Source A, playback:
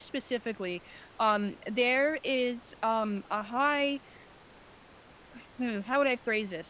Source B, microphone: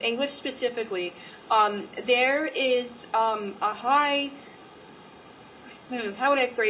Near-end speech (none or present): none